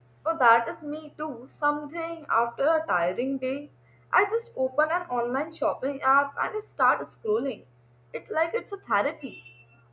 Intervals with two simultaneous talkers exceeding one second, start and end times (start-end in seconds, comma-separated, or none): none